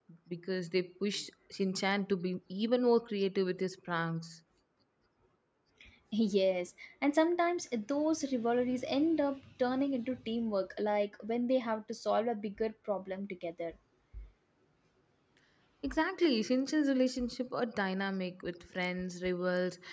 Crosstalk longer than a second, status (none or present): none